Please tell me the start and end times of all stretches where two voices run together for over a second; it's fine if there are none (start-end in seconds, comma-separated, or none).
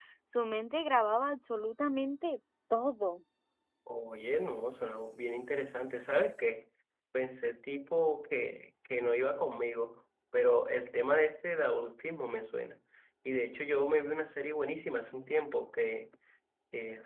none